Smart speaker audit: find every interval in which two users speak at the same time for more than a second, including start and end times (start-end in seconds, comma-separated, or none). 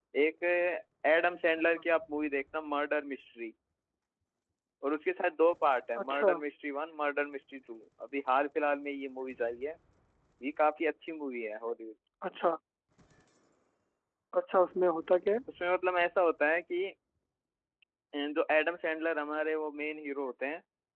none